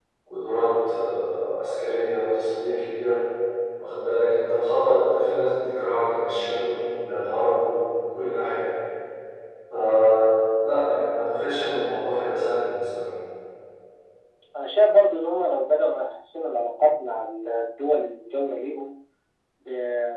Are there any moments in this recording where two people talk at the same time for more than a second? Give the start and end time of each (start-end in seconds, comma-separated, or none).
none